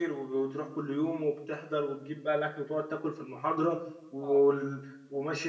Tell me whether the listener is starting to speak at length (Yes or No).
No